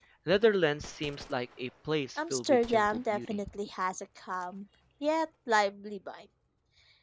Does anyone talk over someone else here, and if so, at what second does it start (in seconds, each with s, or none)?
2.2 s